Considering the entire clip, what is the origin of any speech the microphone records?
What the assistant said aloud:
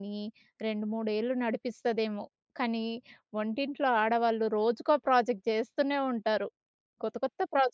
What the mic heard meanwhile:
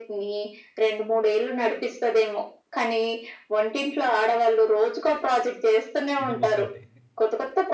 both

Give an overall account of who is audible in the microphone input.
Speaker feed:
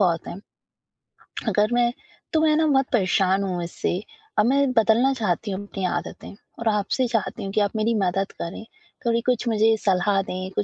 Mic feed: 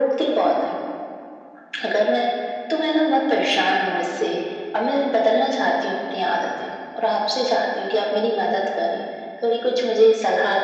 echo only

